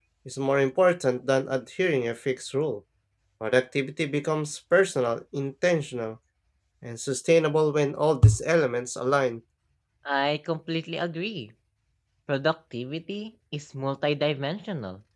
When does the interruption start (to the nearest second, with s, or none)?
none